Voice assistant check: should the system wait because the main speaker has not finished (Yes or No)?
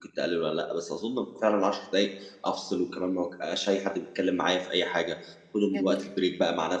Yes